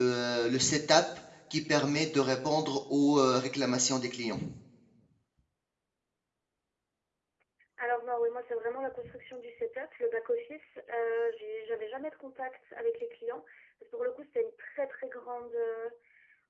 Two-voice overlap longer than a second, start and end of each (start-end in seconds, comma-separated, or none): none